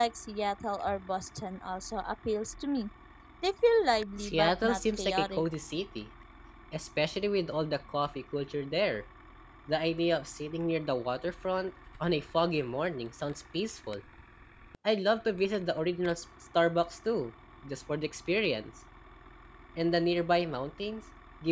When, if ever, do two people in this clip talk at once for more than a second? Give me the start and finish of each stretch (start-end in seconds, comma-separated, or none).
4.2-5.4